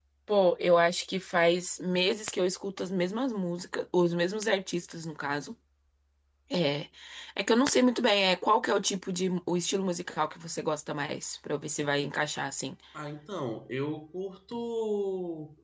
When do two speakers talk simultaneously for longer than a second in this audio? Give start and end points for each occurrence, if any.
none

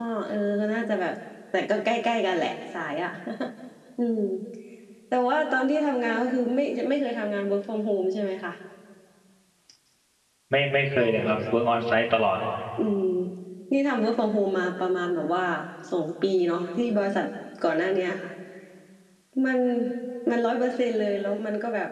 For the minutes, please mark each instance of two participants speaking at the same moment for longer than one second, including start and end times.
none

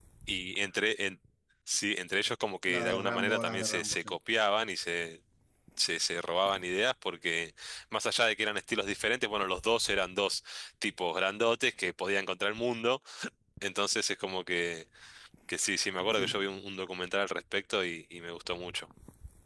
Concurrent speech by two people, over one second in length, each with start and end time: 2.7-4.1

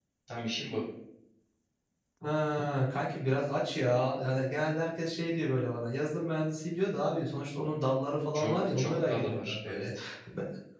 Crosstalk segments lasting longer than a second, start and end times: 8.3-9.8

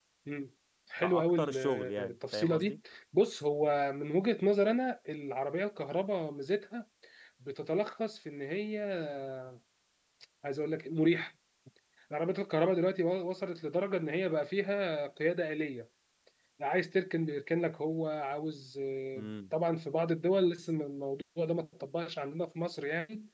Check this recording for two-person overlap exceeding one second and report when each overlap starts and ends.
1.0-2.8

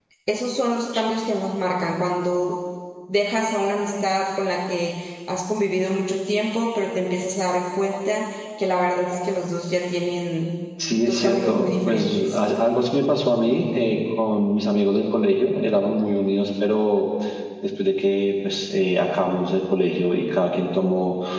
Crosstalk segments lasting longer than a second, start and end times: 11.1-12.4

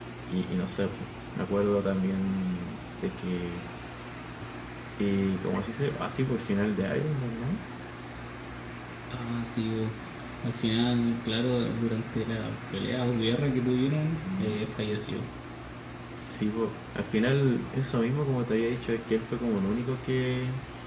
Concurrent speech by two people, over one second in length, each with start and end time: none

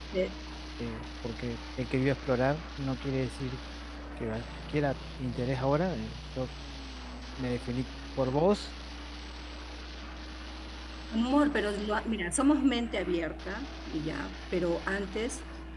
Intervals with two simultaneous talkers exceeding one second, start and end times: none

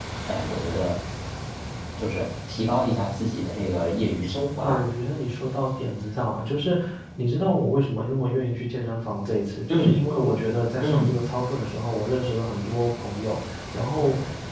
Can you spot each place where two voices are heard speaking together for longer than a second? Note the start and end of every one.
none

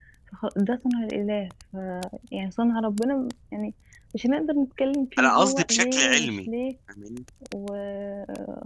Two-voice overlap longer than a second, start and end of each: 5.2-6.5

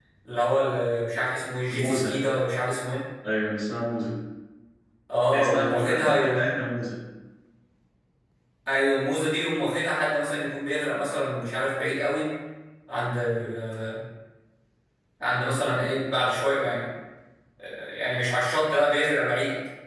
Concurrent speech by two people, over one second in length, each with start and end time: 5.3-6.5

